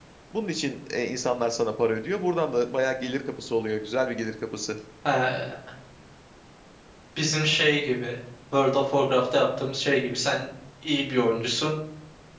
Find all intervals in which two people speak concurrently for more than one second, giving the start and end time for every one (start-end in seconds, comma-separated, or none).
none